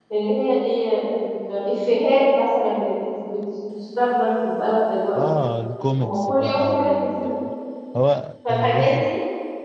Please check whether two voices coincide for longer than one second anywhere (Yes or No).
Yes